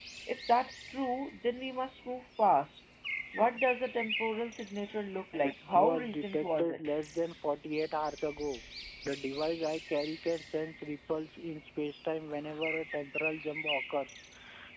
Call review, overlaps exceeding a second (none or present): present